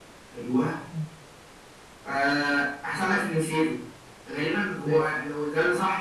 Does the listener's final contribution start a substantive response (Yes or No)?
No